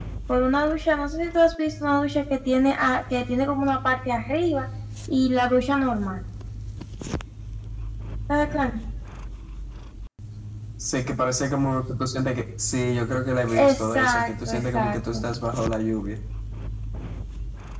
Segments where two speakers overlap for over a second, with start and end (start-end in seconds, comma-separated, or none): 13.7-15.2